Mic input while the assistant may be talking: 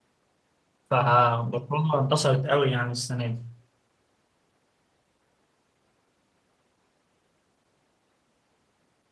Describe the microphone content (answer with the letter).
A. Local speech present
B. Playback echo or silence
A